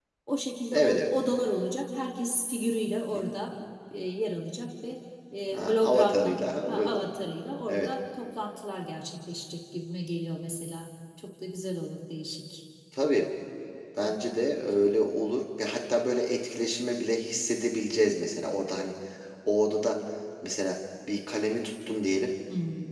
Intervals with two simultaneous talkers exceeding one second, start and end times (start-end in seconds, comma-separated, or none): 5.5-7.0